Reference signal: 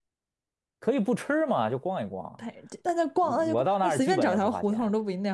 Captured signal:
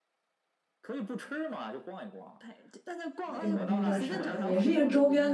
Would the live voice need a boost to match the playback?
No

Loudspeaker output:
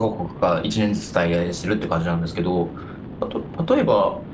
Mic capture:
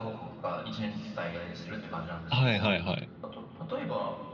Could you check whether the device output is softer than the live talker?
Yes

